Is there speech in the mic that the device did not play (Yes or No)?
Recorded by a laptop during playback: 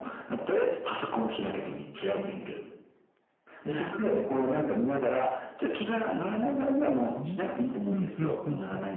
Yes